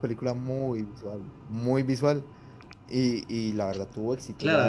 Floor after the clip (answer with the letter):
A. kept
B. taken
B